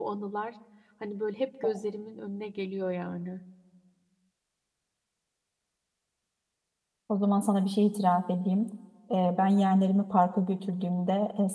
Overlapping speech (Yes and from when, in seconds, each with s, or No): No